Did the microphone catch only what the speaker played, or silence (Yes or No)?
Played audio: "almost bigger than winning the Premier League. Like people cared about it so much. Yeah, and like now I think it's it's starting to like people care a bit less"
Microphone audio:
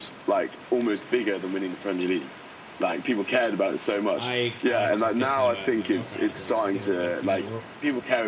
No